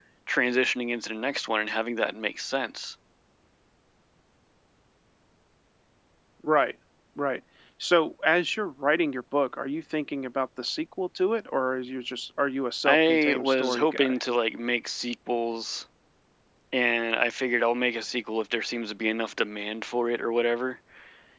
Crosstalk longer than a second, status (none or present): present